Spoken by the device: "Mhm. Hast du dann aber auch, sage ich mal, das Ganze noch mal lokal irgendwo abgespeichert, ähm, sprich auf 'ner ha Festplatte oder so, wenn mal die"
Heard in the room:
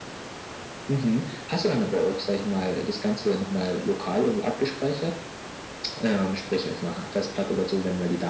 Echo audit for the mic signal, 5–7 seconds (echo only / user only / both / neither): echo only